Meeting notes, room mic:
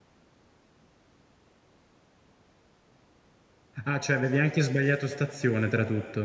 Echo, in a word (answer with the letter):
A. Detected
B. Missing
B